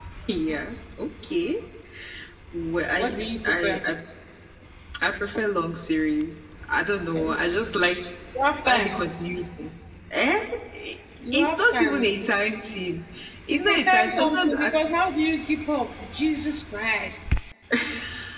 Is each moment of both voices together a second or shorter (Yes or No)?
No